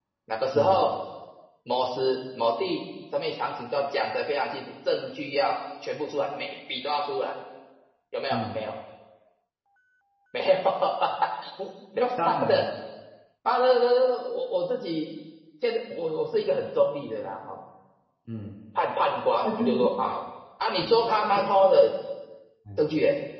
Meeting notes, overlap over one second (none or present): none